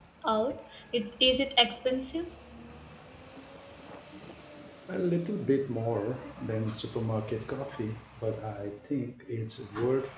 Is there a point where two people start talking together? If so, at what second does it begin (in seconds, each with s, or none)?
none